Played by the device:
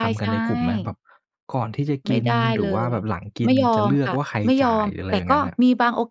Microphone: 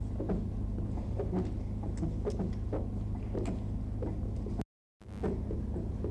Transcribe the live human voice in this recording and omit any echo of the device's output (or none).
none